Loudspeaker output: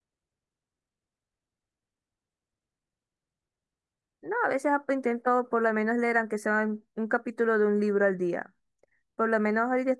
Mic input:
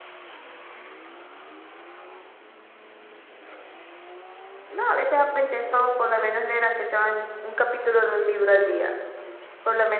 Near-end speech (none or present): none